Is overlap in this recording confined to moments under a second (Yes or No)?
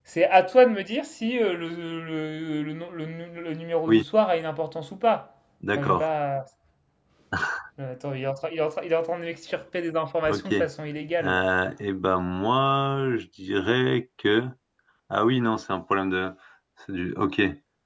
Yes